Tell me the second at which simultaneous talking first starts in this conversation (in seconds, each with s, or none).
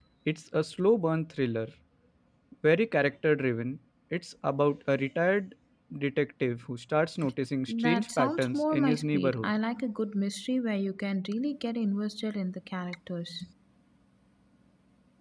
7.7 s